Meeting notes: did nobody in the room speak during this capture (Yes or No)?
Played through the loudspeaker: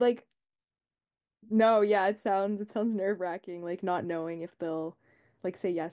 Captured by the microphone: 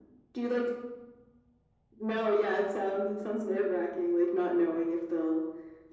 Yes